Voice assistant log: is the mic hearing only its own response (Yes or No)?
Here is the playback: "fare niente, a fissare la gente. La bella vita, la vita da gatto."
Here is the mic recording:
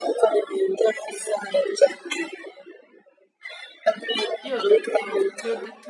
No